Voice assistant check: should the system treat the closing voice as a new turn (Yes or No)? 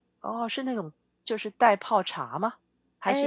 Yes